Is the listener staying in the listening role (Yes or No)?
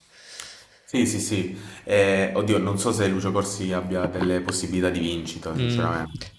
No